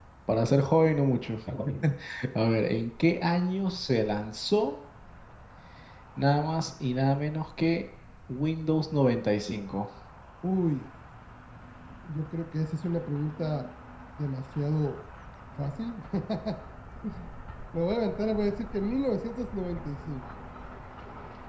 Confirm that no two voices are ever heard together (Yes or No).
Yes